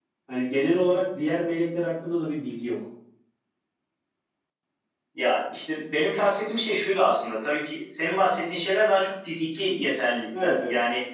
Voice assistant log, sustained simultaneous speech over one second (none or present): none